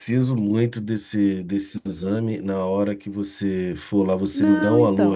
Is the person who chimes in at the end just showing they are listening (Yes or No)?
No